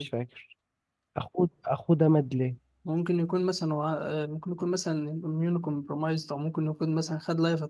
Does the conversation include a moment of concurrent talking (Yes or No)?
No